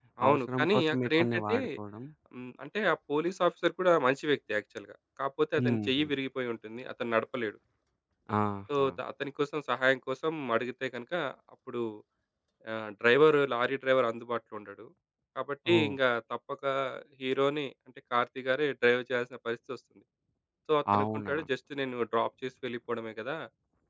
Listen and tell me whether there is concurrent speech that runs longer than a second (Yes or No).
Yes